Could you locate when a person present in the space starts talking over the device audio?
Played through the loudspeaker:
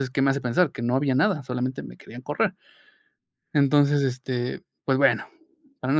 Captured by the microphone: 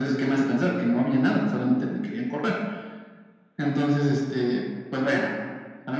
none

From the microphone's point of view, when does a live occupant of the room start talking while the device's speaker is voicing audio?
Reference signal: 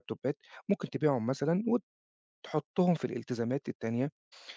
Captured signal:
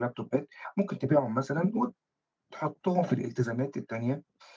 none

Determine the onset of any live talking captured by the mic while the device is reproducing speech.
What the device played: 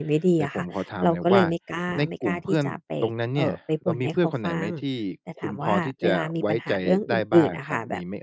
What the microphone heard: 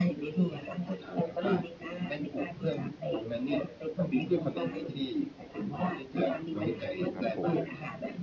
6.5 s

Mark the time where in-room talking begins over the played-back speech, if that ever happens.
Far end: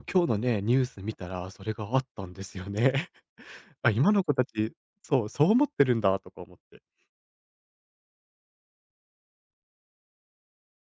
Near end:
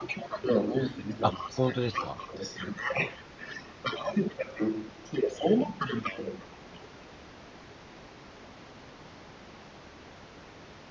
1.2 s

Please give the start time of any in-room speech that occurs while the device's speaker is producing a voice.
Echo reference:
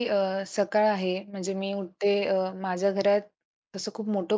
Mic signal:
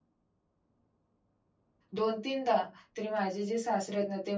1.9 s

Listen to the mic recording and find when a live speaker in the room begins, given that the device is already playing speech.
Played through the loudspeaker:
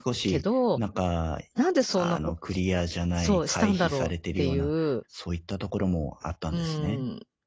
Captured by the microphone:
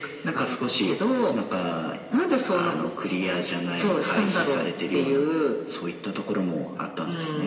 none

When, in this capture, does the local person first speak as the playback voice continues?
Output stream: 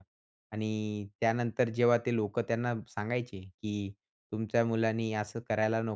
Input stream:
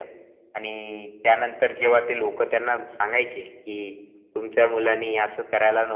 none

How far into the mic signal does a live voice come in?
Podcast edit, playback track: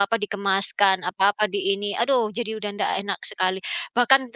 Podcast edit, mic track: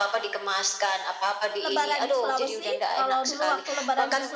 1.6 s

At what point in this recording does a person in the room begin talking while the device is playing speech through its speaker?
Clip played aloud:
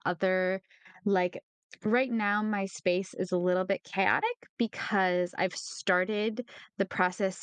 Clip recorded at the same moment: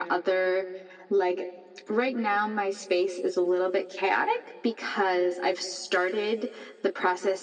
none

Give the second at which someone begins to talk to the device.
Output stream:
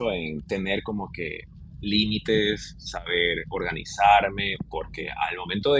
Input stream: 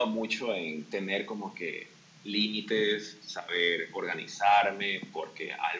none

